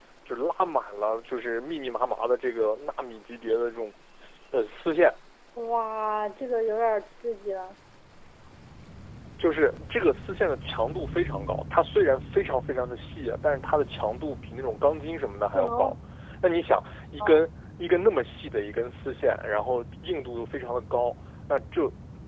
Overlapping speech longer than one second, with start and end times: none

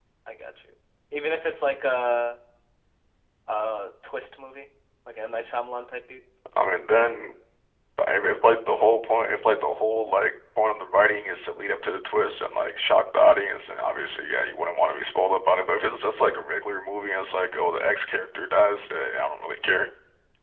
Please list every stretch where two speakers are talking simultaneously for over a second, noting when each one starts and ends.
none

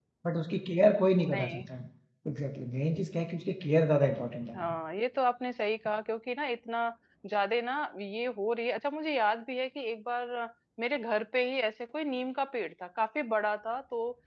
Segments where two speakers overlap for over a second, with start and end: none

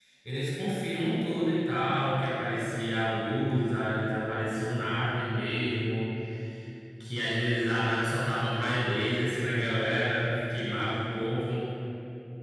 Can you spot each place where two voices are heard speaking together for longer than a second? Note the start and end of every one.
none

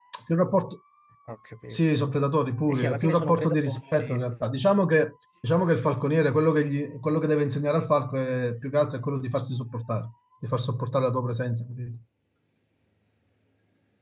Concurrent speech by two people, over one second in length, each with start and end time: 2.7-4.1

